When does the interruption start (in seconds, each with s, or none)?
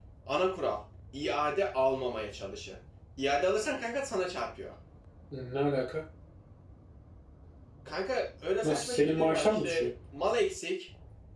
8.6 s